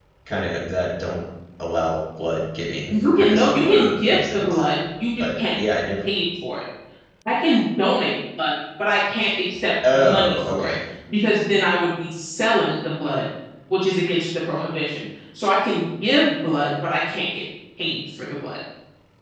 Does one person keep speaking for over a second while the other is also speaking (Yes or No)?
Yes